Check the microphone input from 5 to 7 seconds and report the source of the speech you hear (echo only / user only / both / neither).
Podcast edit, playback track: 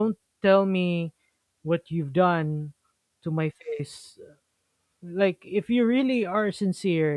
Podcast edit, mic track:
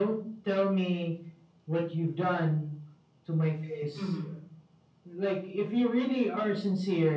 echo only